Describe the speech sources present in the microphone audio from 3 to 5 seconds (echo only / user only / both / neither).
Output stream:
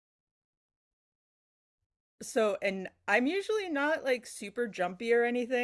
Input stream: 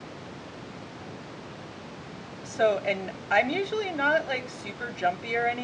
echo only